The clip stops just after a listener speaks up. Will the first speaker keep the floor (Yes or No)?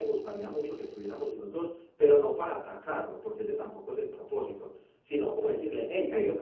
Yes